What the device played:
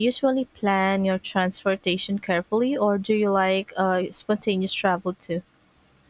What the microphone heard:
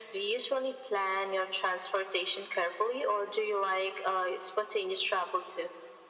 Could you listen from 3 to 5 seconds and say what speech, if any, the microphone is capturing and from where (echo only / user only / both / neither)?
echo only